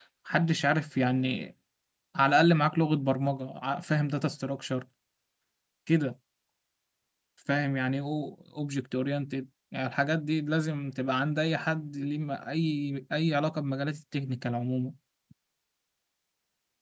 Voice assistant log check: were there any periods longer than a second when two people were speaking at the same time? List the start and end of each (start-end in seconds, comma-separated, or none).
none